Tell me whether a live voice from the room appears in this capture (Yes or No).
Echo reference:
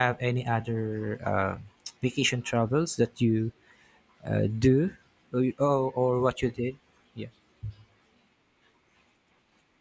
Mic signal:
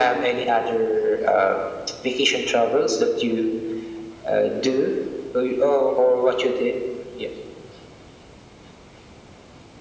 No